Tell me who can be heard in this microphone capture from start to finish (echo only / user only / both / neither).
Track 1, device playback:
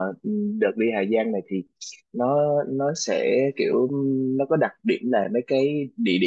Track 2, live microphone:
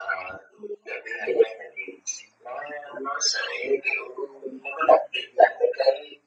echo only